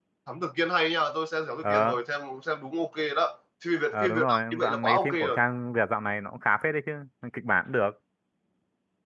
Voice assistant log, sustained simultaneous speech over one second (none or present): present